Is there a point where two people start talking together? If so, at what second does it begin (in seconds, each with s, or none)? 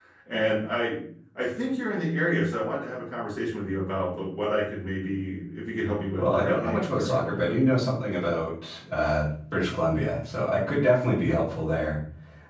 6.2 s